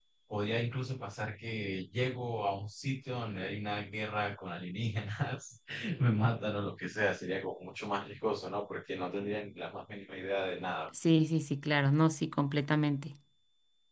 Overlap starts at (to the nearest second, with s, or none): none